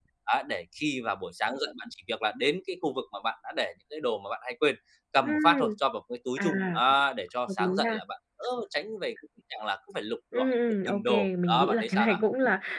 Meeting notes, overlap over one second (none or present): present